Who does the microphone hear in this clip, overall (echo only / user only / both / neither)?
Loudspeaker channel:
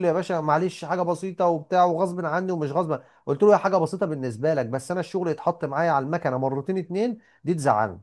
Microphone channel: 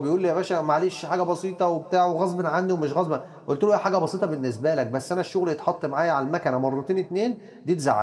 echo only